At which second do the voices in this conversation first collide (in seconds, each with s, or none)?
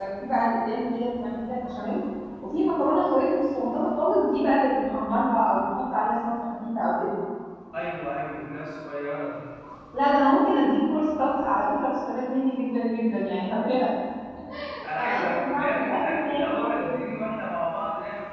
15.0 s